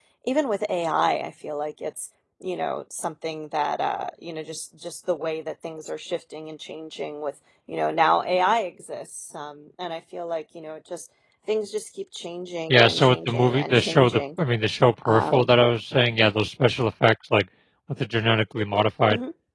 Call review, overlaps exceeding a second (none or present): present